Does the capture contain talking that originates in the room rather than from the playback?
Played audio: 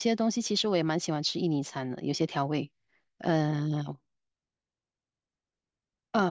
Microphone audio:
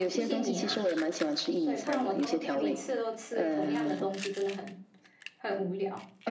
Yes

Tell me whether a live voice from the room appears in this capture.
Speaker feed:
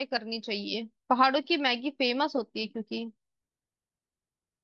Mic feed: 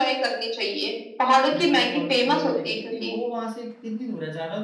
Yes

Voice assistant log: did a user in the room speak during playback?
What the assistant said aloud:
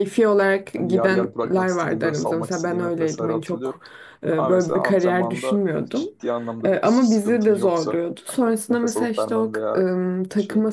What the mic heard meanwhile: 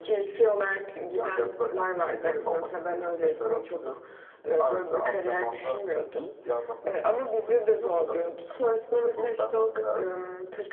No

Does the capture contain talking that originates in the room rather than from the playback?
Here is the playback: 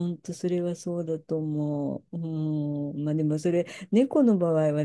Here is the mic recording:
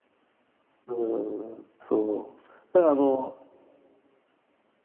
Yes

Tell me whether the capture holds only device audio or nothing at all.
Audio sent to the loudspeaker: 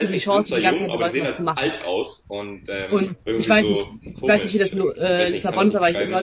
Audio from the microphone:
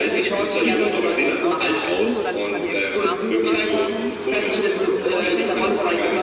No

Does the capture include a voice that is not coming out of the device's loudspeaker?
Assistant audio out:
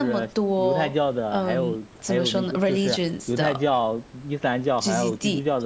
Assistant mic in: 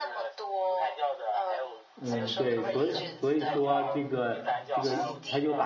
Yes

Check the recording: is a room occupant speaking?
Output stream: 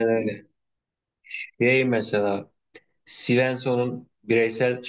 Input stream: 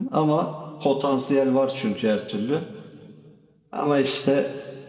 Yes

